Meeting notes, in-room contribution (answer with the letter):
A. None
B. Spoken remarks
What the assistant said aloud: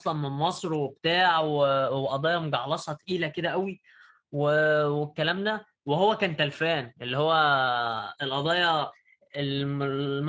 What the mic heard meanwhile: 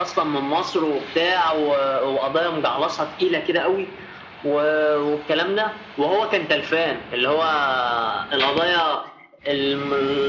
A